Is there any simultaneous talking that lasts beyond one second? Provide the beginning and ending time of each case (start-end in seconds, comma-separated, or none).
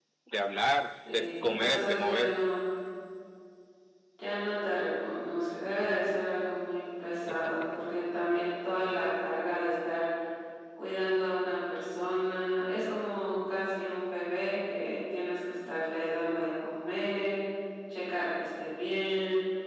1.1-2.4